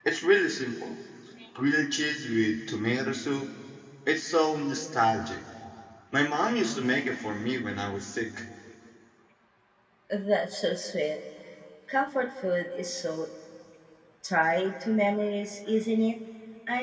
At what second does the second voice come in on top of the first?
none

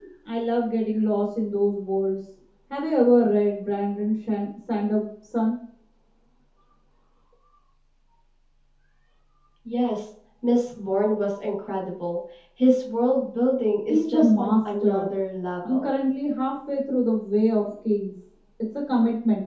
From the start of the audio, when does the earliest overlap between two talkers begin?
13.9 s

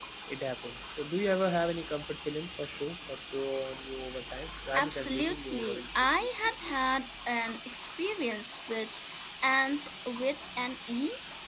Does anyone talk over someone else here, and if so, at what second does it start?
4.7 s

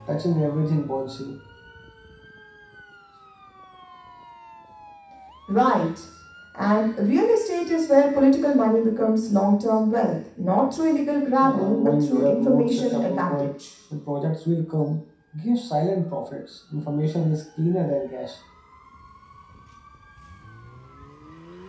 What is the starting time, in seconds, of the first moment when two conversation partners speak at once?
11.4 s

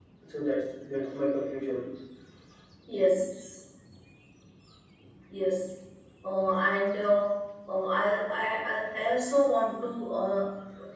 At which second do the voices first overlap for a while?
none

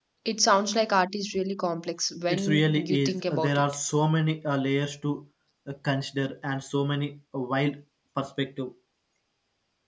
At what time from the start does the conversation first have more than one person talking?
2.3 s

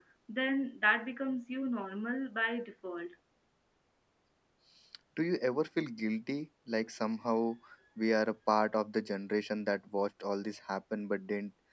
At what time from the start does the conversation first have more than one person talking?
none

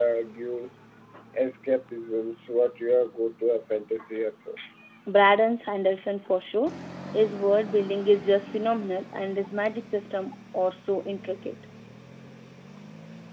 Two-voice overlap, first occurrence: none

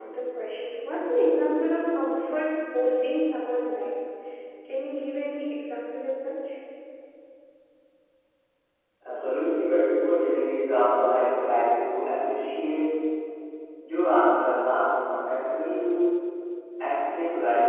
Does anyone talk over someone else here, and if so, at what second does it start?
none

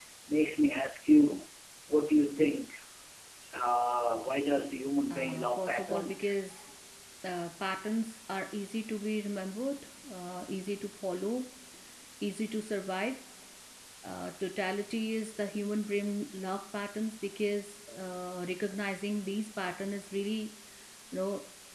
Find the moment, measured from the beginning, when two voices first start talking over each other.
5.1 s

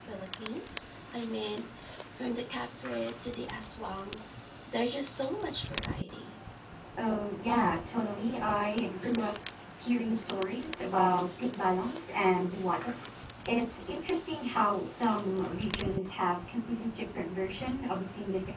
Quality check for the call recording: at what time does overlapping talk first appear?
none

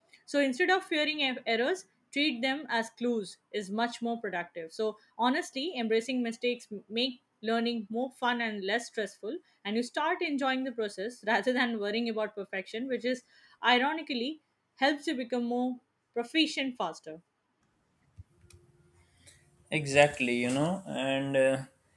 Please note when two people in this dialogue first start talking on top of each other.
none

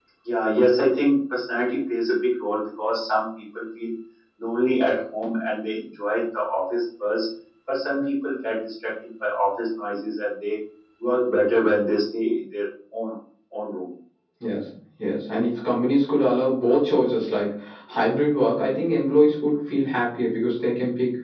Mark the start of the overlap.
none

